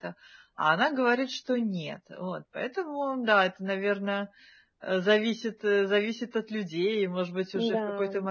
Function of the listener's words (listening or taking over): listening